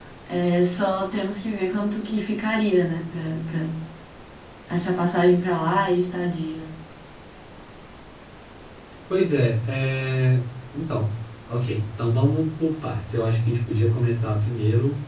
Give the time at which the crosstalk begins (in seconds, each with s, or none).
none